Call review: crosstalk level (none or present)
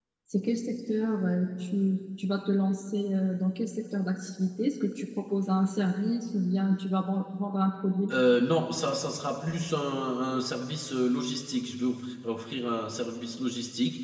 none